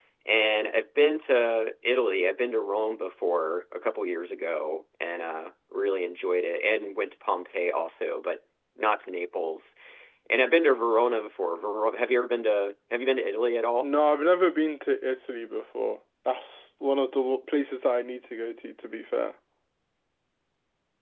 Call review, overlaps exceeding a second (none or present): none